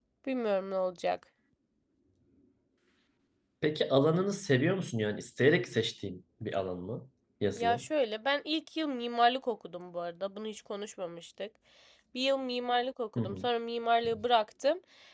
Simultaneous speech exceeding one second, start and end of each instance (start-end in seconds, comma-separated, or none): none